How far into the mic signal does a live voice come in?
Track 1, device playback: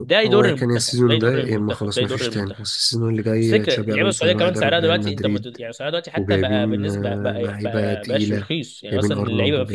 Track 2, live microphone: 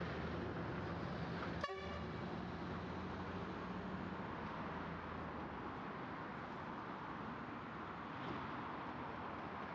none

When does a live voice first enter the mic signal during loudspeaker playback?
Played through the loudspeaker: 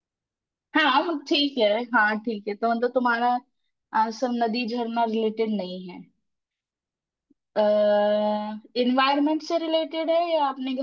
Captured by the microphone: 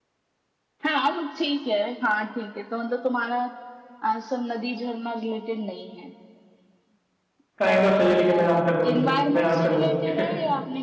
7.6 s

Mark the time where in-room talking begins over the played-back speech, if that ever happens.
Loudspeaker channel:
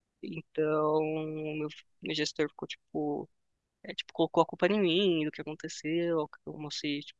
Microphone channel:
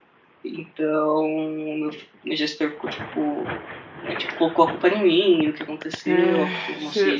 6.0 s

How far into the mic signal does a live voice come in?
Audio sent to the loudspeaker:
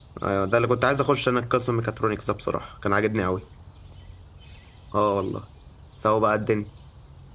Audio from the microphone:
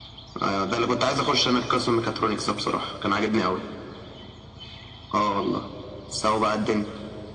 none

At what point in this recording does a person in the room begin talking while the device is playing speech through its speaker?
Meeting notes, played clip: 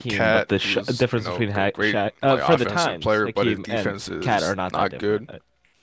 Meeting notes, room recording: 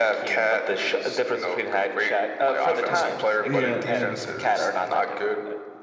2.9 s

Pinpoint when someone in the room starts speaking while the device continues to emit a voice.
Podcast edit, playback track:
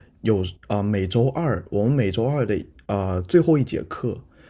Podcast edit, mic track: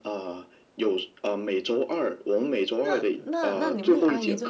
2.8 s

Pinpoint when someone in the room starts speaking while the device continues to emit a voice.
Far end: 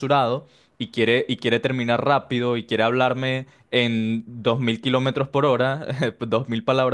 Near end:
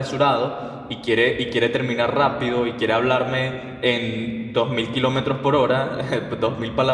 none

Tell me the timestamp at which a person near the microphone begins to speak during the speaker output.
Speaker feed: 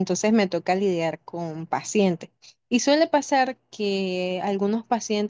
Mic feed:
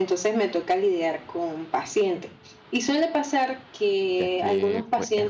4.2 s

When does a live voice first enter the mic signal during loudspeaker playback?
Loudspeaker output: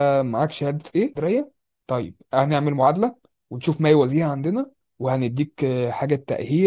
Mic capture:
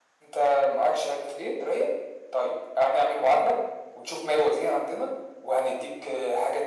none

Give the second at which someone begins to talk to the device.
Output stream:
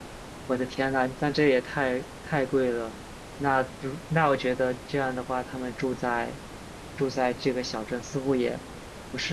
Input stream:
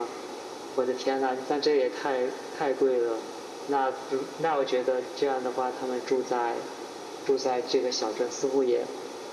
none

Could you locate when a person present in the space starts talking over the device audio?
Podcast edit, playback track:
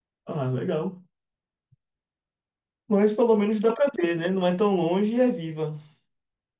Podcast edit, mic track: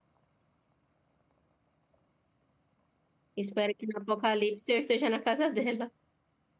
3.4 s

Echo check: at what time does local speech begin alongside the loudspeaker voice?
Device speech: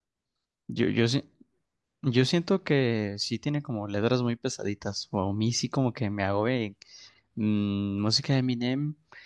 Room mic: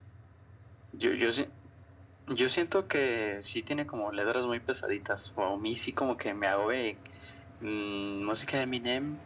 none

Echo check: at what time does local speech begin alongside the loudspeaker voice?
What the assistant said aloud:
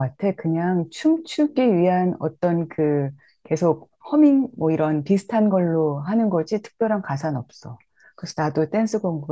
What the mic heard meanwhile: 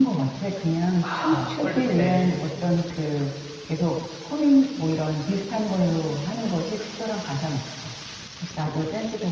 1.0 s

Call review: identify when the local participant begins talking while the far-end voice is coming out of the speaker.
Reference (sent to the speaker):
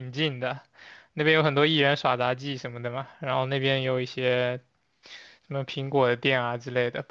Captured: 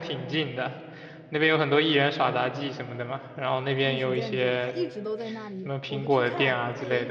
3.8 s

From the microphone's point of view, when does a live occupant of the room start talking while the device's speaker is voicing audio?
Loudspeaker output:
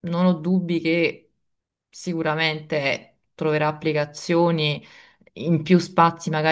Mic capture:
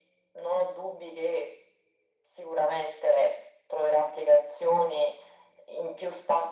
none

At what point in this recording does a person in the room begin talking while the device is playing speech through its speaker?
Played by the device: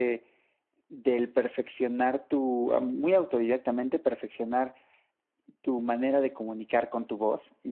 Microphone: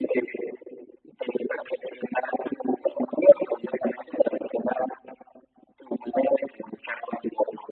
none

